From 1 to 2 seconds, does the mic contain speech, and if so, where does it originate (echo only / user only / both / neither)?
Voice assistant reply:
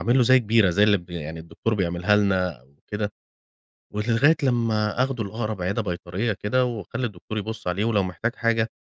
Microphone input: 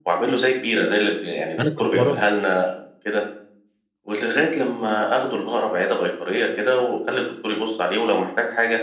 both